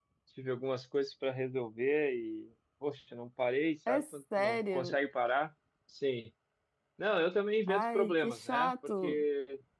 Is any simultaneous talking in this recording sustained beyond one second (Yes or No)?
Yes